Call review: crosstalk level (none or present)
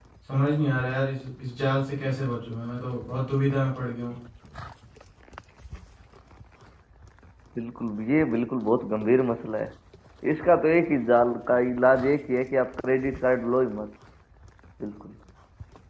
none